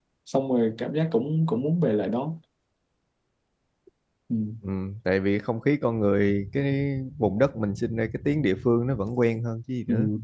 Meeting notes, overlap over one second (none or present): none